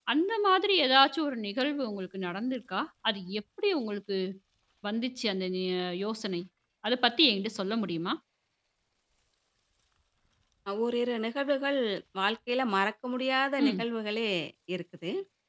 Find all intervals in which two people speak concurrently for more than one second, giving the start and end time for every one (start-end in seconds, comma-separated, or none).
none